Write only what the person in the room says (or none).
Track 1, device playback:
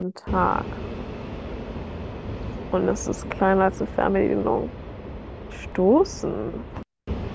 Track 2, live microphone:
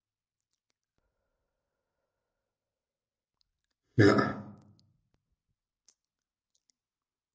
ja,